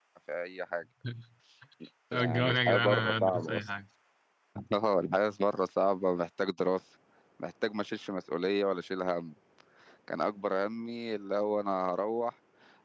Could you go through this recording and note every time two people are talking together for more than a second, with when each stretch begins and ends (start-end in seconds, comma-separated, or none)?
2.1-3.7